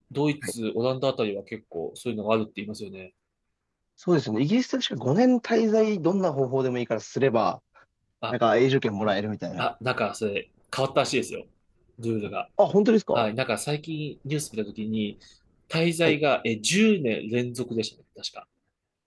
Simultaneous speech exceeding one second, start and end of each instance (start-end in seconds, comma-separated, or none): none